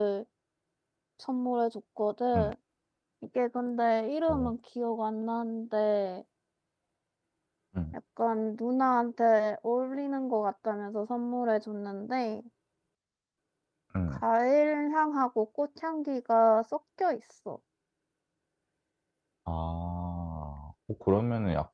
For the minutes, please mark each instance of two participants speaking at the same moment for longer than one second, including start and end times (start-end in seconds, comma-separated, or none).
none